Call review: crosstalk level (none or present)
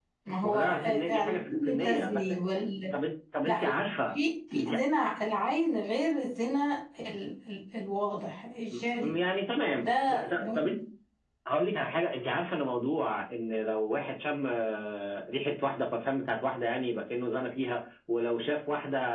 present